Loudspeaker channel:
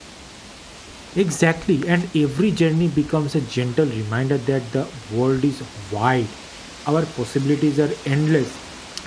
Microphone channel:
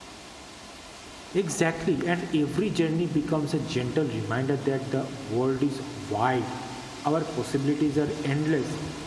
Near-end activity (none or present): none